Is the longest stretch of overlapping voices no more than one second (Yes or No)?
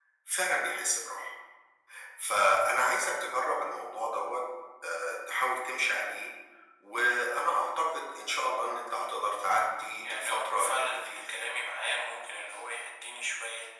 No